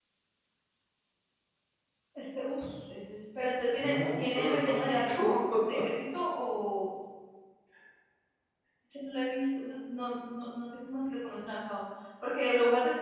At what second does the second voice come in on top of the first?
4 s

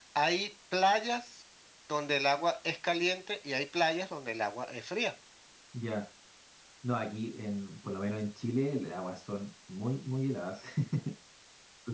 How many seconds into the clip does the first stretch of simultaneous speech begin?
none

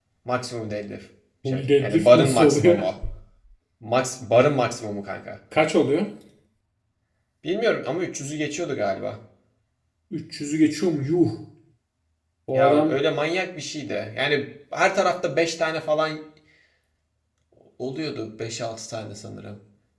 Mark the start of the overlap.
1 s

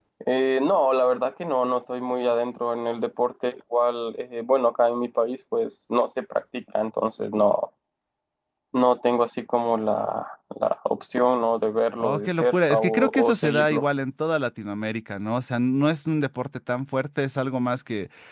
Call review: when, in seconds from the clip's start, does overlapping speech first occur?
12 s

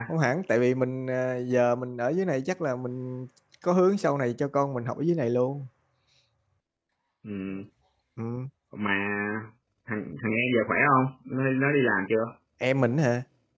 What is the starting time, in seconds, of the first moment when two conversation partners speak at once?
none

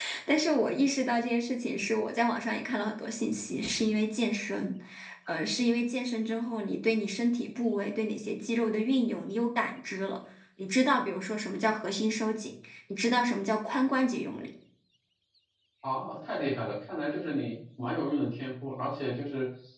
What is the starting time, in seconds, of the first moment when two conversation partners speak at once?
none

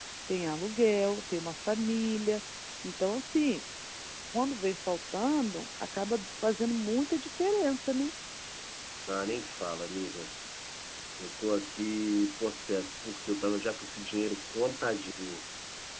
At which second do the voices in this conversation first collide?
none

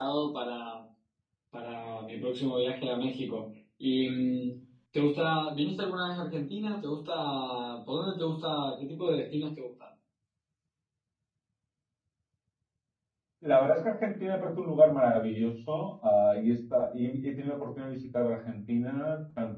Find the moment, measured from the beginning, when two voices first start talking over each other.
none

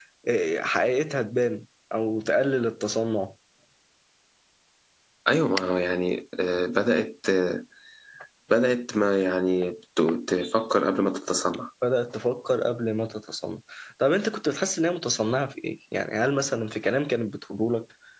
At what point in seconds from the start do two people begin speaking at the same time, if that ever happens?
none

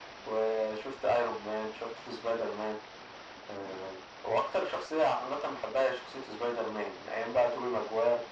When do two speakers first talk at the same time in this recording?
none

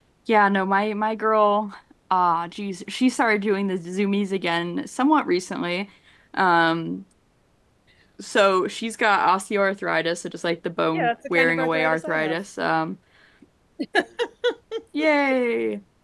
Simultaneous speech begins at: 11 s

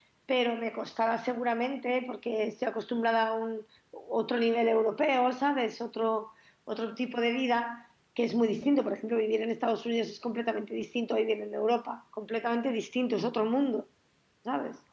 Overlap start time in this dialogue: none

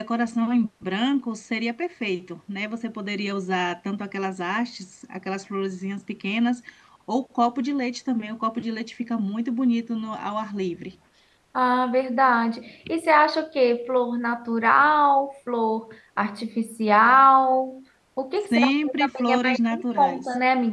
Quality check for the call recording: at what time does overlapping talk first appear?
19 s

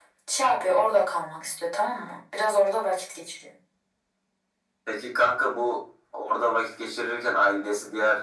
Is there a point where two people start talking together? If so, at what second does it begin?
none

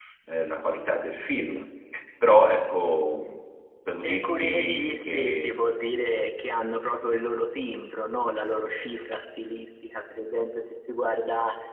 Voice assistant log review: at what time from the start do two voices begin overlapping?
4 s

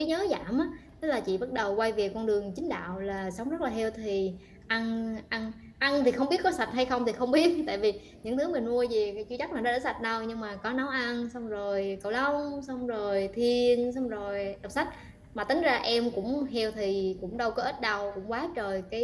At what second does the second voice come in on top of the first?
none

